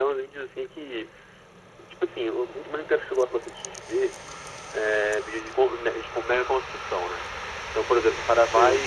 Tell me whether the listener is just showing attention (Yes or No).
Yes